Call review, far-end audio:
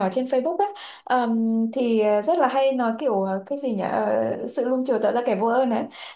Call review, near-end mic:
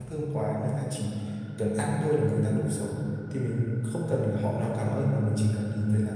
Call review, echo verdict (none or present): none